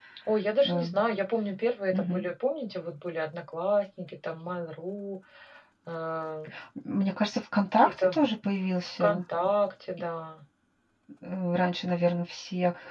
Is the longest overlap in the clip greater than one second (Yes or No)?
No